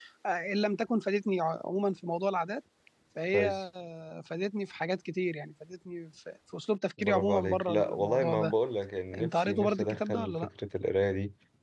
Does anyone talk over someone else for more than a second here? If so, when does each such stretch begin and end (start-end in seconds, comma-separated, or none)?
7.0-8.5, 9.2-10.5